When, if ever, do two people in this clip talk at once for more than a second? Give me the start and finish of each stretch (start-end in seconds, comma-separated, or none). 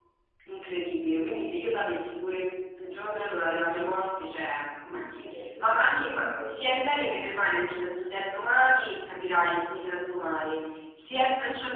4.9-6.5